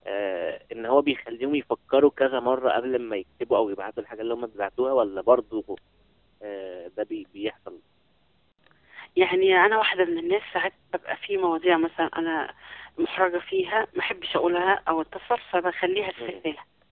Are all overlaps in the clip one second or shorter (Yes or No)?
Yes